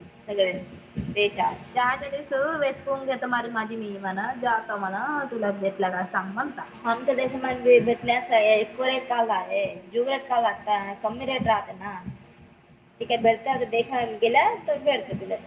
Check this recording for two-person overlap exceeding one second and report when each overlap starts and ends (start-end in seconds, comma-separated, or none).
none